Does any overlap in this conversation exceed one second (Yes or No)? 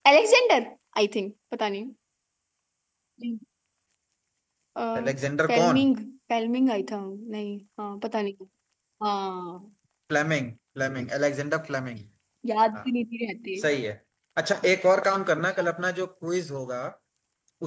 No